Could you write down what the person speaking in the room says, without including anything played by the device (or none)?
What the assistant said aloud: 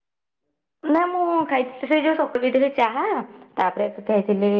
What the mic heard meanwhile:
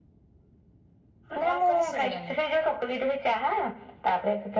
କଣ କହିଲେ ଶୁଭିଲାନି